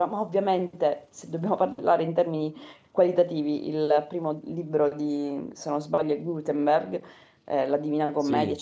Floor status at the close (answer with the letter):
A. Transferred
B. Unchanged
B